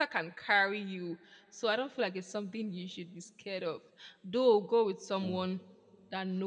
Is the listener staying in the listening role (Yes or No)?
Yes